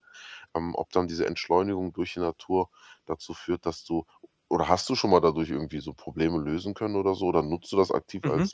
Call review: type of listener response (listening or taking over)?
taking over